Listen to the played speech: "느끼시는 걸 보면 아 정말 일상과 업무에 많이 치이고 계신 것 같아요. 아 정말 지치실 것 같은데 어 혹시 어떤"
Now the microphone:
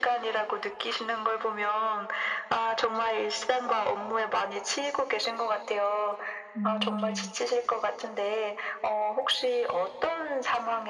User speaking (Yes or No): Yes